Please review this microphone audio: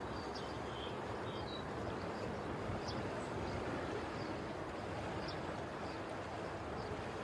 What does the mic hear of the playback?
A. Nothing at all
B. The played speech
A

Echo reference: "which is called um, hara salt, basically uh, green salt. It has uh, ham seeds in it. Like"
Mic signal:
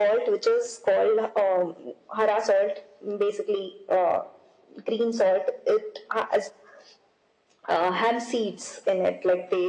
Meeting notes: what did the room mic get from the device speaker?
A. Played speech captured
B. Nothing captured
A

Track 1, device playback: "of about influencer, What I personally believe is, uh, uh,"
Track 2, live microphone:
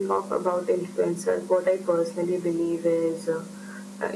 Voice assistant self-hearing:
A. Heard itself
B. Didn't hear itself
A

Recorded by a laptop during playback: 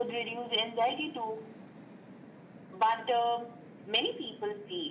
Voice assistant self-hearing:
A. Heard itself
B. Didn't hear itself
A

